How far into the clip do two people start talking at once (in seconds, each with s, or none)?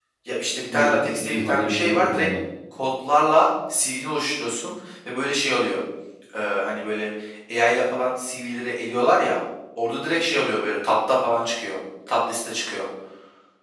0.7 s